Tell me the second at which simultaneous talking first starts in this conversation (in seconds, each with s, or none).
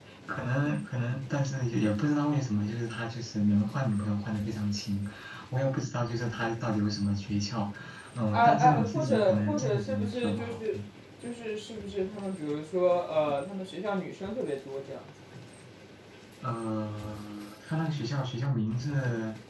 8.3 s